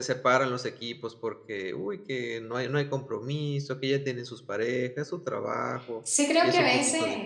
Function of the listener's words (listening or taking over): taking over